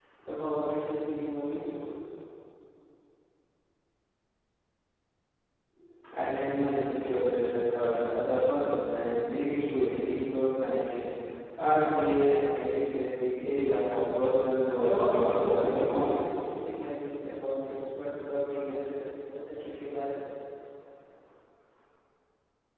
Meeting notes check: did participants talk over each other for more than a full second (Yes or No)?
Yes